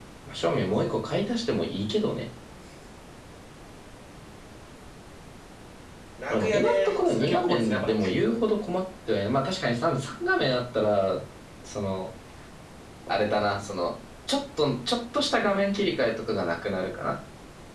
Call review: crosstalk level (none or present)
present